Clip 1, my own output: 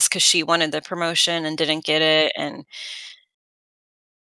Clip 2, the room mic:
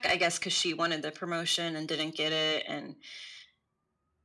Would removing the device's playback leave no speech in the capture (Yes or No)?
Yes